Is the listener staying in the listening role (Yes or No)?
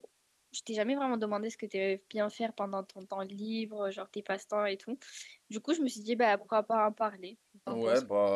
No